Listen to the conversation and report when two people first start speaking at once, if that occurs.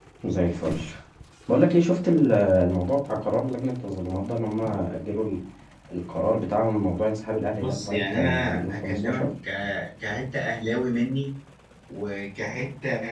7.6 s

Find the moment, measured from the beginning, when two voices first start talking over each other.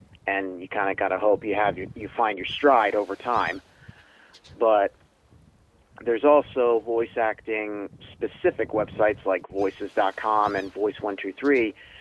none

